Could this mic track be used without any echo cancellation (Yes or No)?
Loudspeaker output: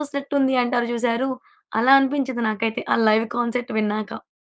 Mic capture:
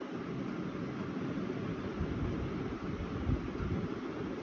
Yes